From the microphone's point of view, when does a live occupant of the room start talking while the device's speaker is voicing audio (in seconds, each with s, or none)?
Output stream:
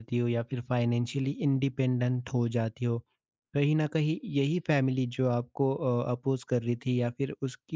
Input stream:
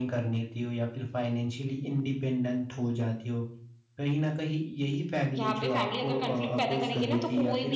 5.4 s